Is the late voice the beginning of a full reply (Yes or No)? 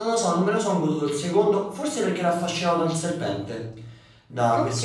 No